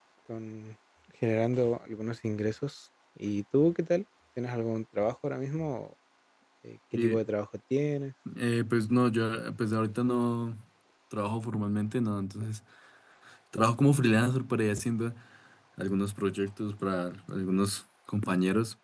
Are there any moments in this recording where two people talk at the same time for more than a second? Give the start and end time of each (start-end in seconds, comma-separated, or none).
none